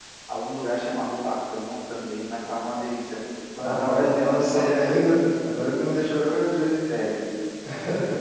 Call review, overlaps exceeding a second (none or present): present